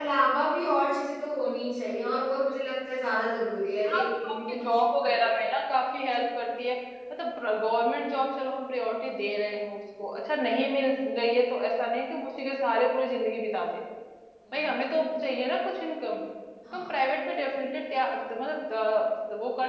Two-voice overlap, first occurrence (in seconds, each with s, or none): 3.9 s